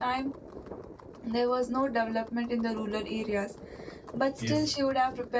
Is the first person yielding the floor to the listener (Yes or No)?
No